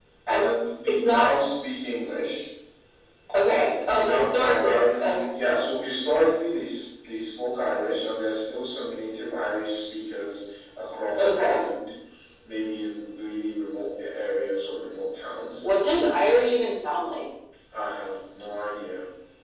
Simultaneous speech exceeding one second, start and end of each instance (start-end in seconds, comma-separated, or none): 3.4-5.3